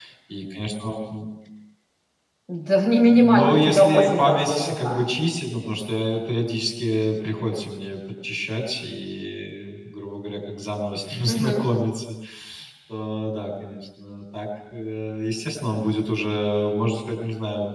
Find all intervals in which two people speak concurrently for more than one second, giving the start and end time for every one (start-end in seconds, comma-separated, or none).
3.1-5.0